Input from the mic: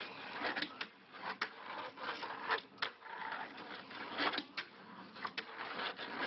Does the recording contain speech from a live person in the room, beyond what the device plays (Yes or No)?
No